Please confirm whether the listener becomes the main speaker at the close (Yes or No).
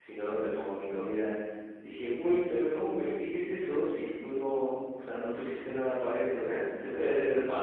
No